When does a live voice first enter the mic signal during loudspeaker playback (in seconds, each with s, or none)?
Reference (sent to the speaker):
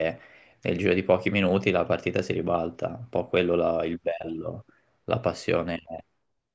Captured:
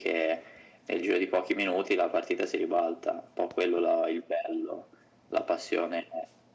none